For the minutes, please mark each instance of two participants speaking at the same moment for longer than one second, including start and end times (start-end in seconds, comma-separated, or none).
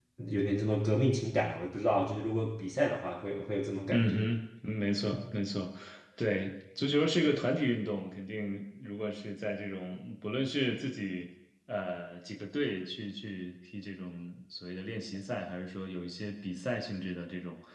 none